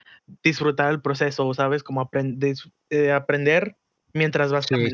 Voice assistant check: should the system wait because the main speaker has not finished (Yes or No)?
No